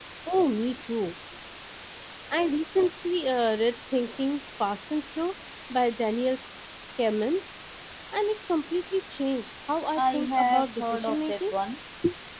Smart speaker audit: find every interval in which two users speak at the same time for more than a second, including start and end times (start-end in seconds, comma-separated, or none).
10.0-11.5